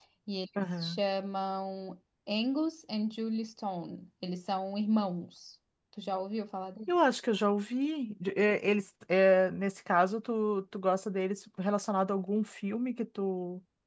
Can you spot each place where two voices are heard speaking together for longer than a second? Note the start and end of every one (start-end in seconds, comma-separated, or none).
none